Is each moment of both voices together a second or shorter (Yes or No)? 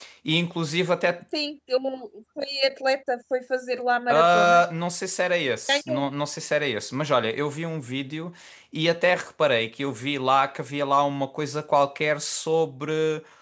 Yes